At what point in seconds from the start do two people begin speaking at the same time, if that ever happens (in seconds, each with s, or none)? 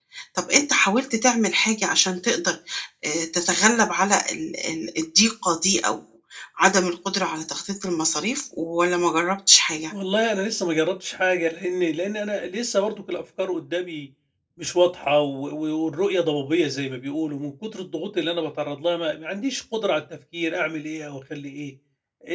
none